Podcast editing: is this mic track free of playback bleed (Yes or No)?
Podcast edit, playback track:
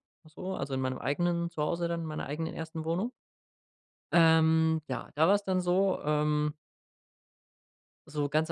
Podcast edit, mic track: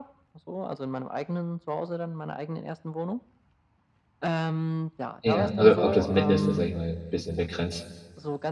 No